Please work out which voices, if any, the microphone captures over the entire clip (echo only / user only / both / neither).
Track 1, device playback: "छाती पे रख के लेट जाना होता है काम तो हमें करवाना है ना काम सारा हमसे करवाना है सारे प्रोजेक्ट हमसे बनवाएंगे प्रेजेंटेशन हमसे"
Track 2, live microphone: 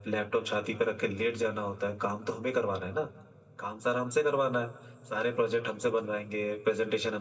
echo only